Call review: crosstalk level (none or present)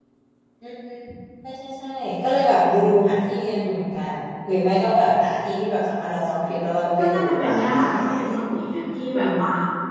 present